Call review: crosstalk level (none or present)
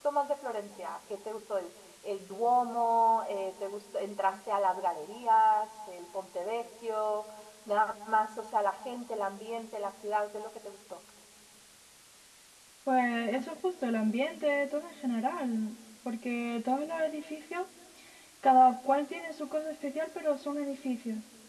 none